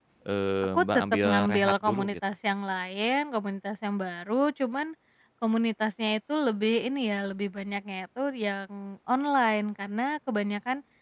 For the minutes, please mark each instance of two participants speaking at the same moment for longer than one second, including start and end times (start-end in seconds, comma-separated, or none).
0.8-2.1